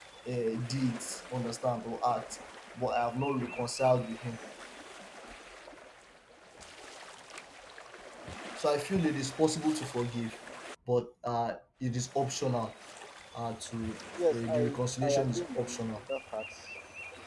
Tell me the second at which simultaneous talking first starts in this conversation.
14.3 s

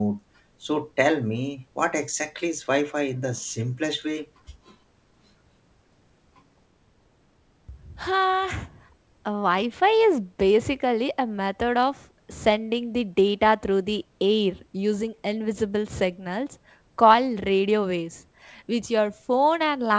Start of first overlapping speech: none

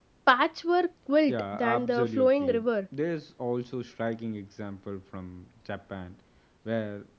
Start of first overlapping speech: 1.3 s

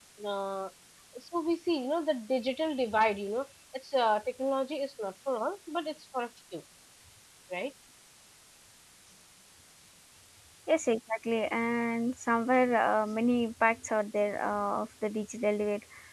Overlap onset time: none

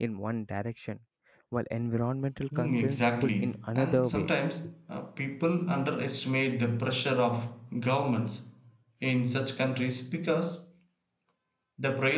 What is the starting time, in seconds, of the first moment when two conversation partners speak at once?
2.5 s

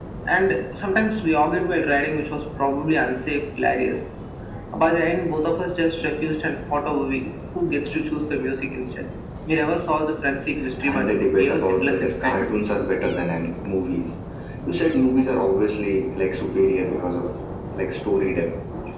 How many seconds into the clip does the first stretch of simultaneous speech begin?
10.8 s

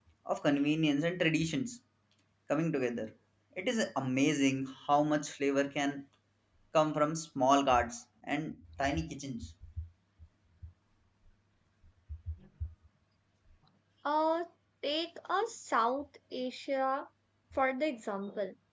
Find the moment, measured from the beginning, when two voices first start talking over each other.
none

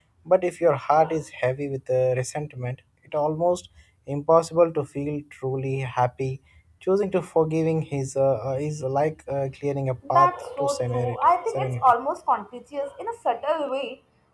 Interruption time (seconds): 10.0 s

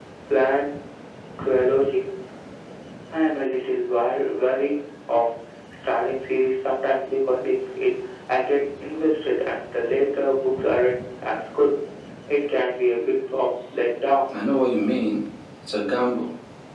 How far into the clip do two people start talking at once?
none

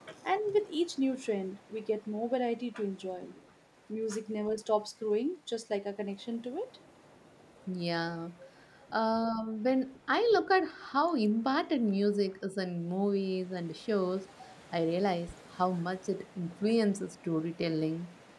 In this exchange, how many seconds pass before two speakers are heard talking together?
none

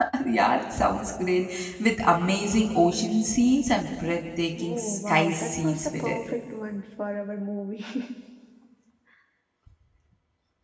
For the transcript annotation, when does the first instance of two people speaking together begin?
4.6 s

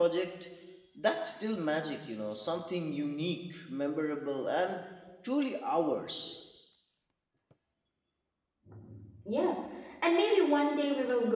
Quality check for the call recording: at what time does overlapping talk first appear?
none

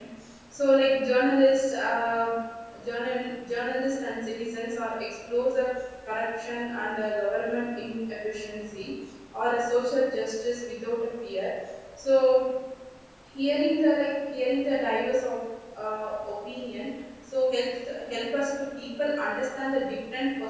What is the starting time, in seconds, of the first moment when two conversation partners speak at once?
none

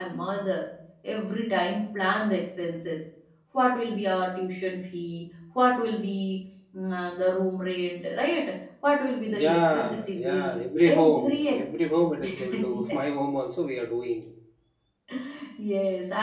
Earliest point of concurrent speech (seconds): 9.3 s

